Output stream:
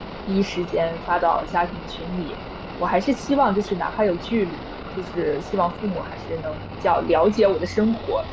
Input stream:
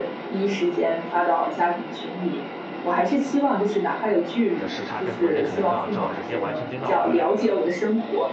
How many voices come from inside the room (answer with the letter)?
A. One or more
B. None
A